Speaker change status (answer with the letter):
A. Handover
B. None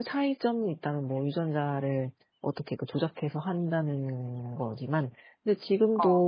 B